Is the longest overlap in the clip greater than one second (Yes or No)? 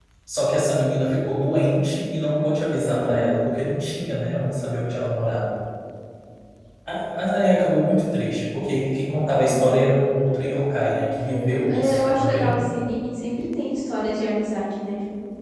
Yes